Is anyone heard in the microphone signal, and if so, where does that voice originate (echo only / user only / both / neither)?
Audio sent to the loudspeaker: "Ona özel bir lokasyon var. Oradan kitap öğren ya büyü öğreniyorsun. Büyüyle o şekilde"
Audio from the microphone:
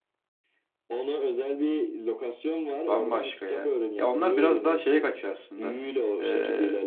both